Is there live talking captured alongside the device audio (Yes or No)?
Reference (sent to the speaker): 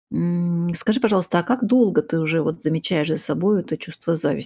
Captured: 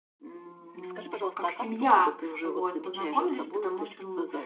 Yes